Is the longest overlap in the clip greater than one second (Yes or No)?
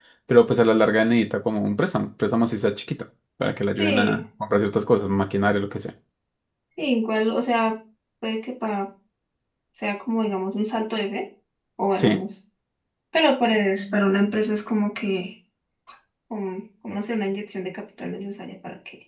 No